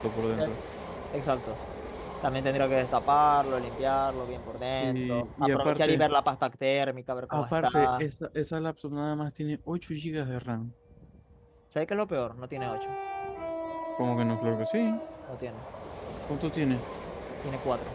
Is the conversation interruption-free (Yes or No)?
No